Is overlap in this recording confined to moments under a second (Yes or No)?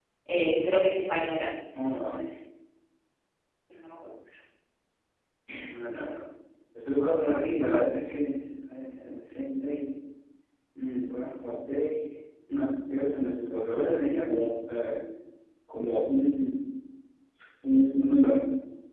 Yes